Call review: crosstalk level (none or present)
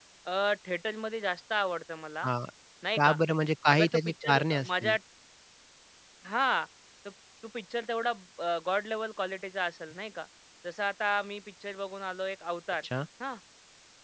present